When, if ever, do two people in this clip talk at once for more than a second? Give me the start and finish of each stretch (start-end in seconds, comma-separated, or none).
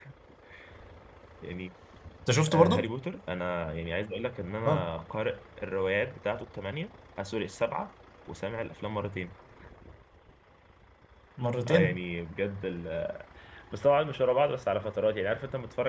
none